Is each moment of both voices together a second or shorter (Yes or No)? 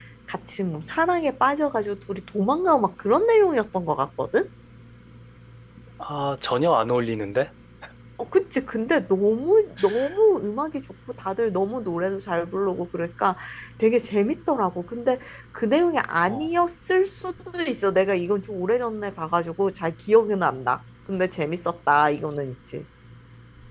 Yes